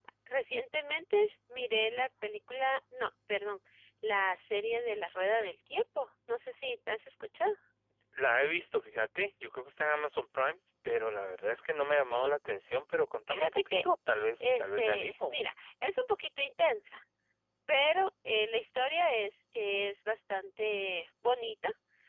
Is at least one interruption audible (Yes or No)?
Yes